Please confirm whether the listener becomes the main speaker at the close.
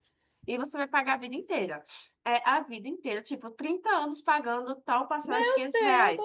Yes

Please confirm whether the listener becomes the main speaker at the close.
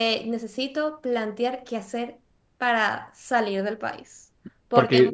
Yes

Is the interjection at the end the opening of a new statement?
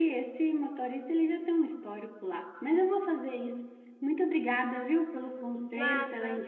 No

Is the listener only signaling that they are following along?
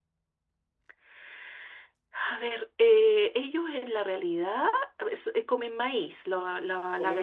No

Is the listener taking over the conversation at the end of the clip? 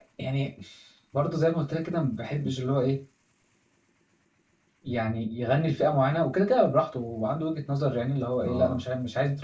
No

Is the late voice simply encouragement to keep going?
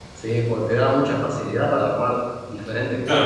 No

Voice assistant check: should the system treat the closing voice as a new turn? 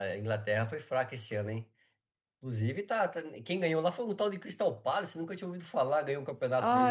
Yes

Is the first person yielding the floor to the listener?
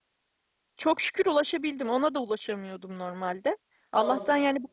No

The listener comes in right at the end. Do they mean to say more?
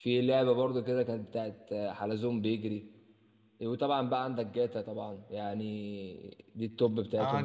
Yes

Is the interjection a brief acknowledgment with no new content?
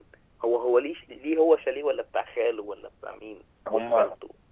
No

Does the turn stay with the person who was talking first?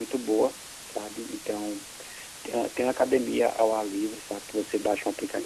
Yes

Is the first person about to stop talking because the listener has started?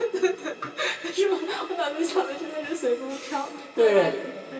Yes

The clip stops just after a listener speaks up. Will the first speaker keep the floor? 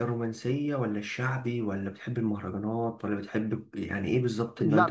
No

